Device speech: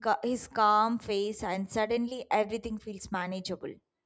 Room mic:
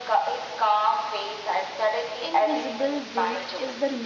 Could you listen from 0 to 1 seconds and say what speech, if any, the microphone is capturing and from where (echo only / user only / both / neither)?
echo only